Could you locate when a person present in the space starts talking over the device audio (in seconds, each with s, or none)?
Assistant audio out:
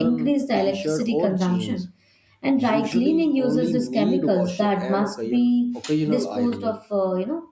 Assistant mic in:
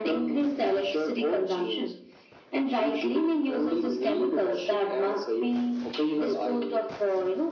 none